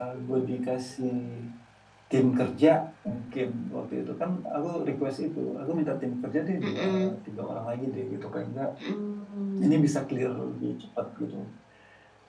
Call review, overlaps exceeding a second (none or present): none